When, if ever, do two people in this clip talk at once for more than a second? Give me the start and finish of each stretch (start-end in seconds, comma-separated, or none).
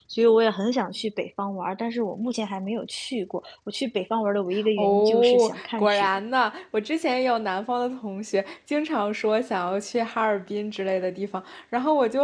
4.8-6.1